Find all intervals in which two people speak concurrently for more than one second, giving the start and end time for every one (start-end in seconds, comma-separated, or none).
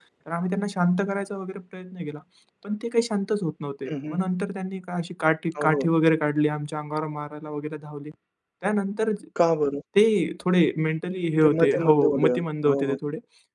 11.4-13.0